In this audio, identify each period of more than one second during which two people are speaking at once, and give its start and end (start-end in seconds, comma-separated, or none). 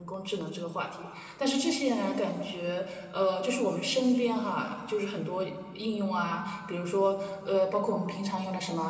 none